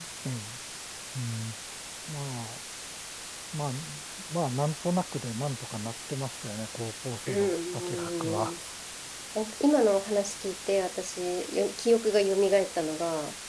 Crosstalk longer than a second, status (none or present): present